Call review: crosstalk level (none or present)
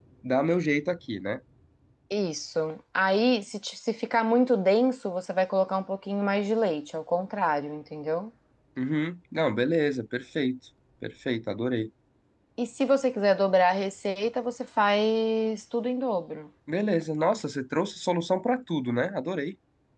none